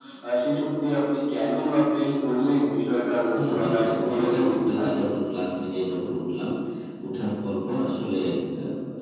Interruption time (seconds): 3.4 s

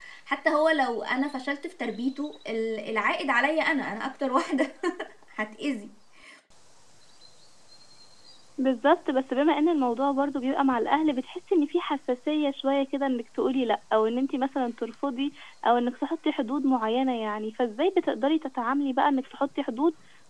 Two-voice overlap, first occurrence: none

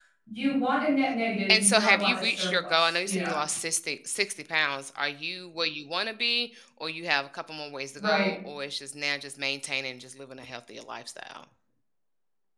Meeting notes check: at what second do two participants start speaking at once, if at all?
1.5 s

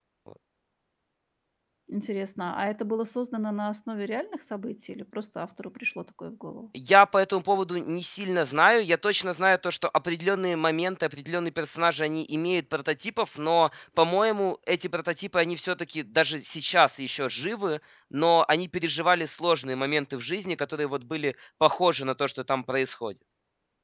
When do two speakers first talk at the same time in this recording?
none

